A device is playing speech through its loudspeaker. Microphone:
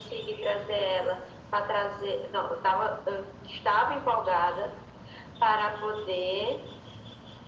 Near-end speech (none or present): none